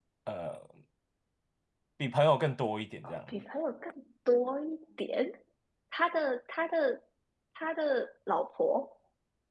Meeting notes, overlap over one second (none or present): none